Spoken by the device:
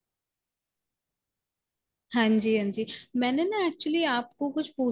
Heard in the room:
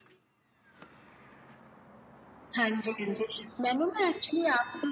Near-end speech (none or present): none